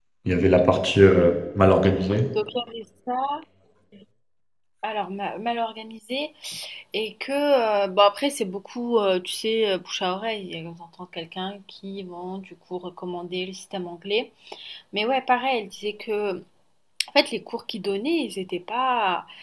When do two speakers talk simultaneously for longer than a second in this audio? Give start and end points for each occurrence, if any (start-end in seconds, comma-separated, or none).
none